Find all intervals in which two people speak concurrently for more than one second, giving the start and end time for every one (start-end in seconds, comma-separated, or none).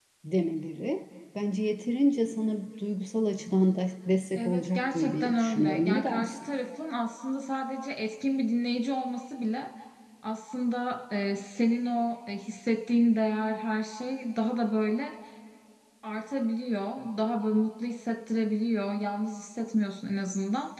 4.4-6.4